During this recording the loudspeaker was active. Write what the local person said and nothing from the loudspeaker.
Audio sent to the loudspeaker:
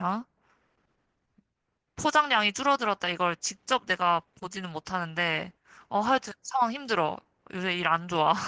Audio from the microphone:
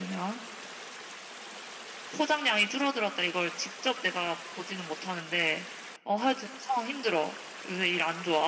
none

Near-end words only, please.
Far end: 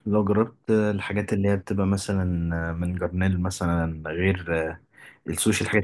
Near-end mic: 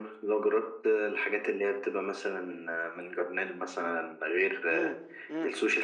امم امم

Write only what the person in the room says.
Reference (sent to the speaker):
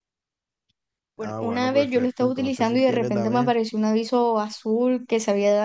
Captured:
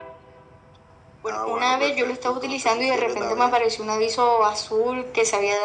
none

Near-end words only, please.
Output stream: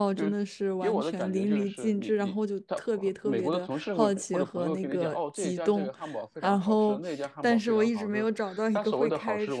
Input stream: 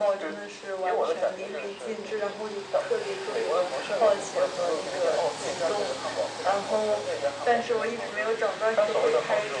none

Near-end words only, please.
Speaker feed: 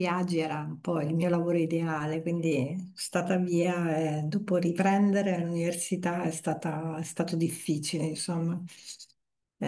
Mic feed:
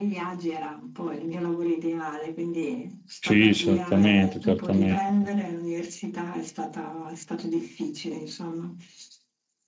sì, certamente, certamente.

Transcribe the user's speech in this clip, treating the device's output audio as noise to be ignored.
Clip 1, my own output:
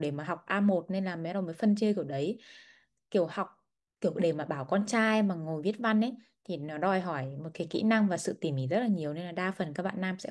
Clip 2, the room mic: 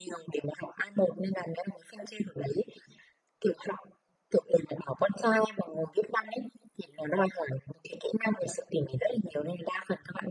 none

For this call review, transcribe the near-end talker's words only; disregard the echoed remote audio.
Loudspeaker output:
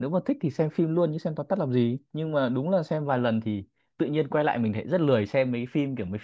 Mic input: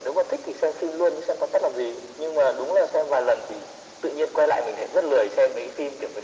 none

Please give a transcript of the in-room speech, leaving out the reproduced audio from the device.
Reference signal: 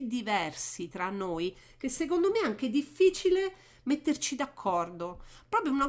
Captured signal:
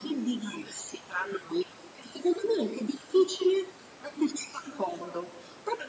none

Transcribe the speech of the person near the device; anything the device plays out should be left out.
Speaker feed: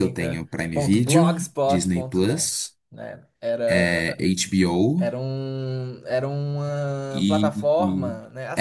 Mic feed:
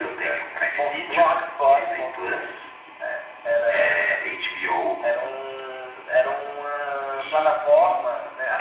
none

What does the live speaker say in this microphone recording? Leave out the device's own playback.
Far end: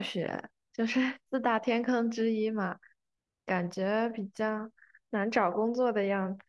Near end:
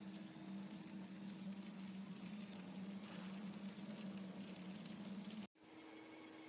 none

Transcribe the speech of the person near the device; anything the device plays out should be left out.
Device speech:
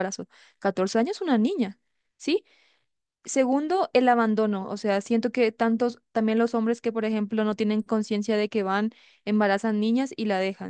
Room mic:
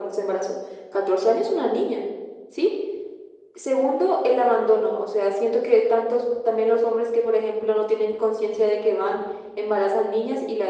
none

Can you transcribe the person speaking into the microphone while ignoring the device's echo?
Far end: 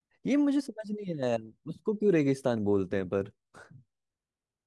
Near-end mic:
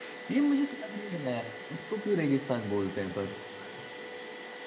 none

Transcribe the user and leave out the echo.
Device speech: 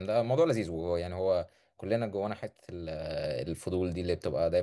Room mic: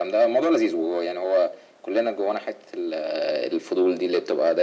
none

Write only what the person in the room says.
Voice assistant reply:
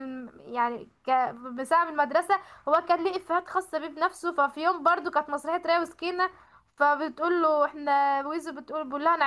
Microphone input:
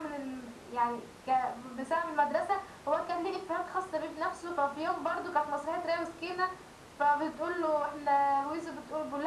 none

